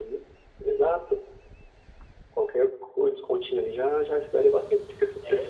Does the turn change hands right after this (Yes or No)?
No